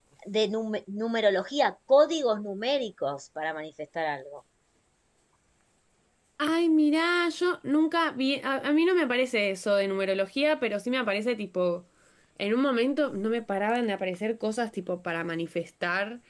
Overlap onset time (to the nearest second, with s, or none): none